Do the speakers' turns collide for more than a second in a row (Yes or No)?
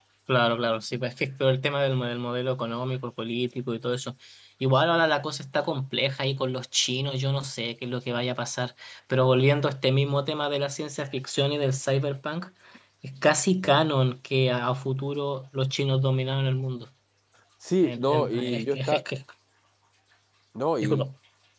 Yes